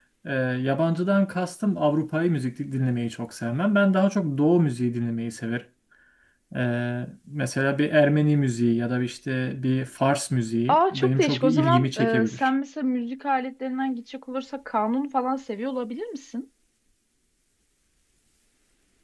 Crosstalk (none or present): present